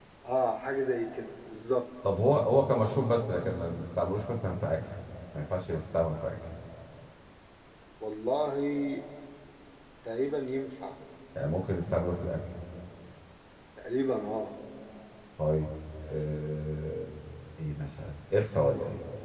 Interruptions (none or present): none